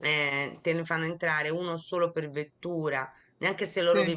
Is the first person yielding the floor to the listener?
No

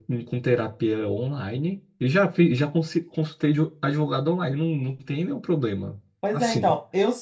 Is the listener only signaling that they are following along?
No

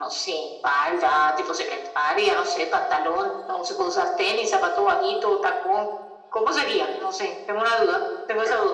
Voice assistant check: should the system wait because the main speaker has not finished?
No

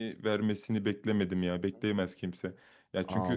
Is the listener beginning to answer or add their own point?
Yes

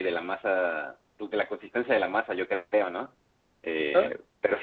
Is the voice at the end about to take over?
No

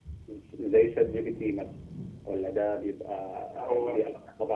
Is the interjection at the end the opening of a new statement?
No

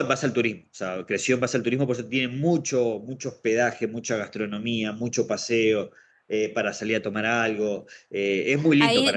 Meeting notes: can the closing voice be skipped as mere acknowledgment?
No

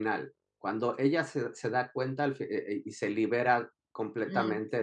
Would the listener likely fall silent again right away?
No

